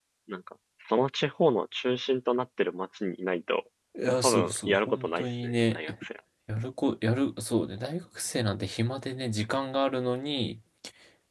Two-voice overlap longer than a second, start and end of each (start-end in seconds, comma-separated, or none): 4.2-5.8